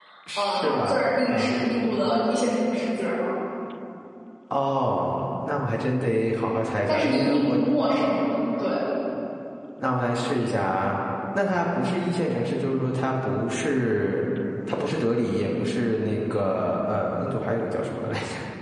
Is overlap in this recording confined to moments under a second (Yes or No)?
No